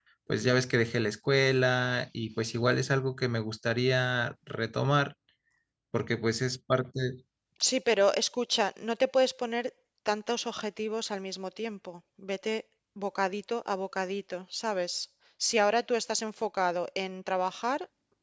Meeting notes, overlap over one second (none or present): none